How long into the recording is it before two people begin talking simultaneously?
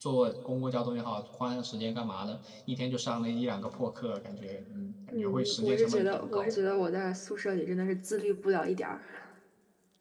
5.1 s

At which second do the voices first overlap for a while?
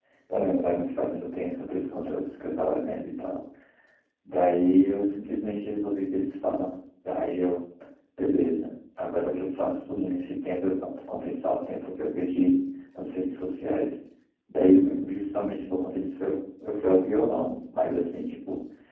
none

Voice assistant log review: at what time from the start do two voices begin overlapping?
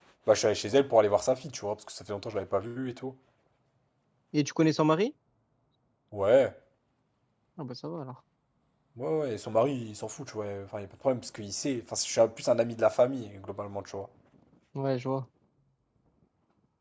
none

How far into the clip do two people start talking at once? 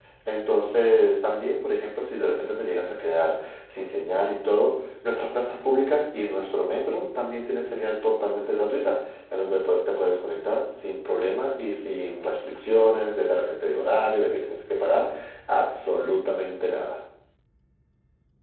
none

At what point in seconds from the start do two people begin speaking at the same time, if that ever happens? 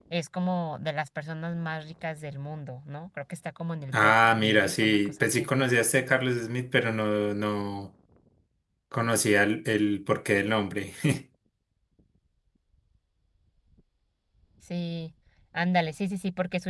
3.9 s

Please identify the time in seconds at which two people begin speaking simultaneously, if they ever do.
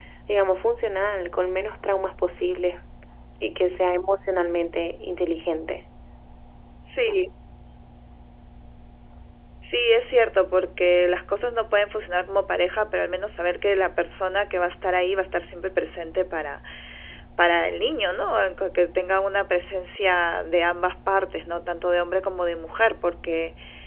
none

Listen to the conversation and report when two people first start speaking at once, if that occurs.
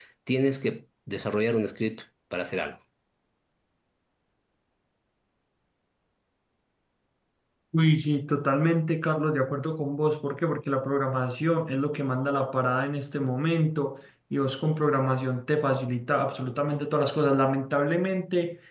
none

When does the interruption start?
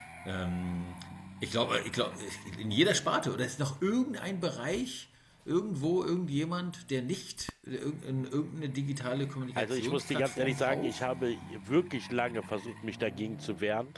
9.6 s

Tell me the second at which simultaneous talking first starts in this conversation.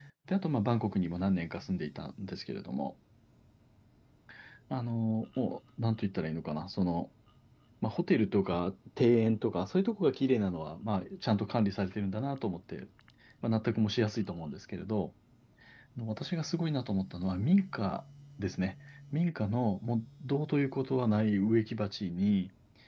none

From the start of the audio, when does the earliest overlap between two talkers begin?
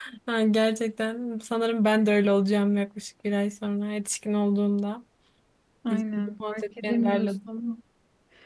6.2 s

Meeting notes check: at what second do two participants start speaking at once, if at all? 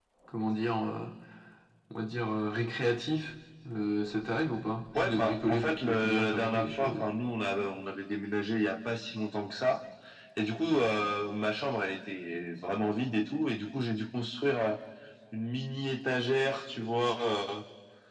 5.0 s

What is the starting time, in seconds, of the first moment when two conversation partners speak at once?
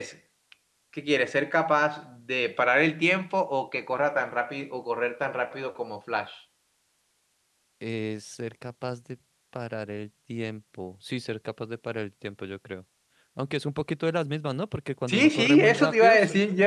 15.1 s

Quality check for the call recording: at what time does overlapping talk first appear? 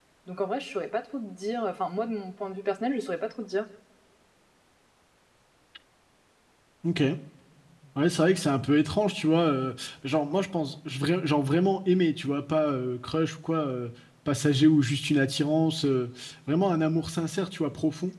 none

